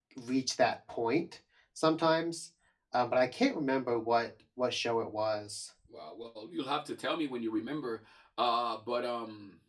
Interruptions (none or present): none